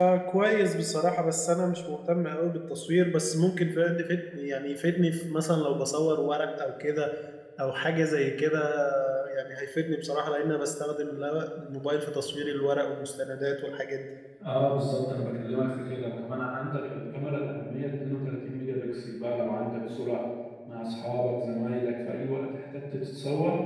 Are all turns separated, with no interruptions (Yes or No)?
Yes